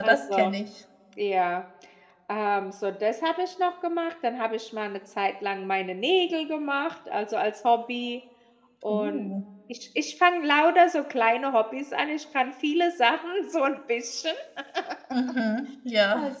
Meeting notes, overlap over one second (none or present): none